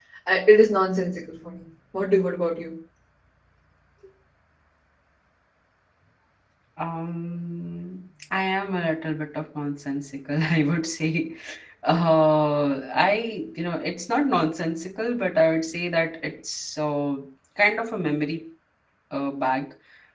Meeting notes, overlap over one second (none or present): none